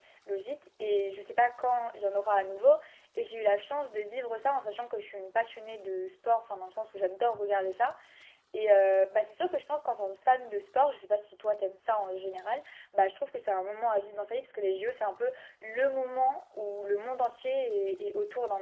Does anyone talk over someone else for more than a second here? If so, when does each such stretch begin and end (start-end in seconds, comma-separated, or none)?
none